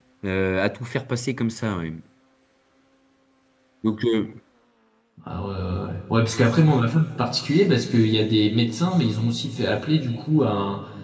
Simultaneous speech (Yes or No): No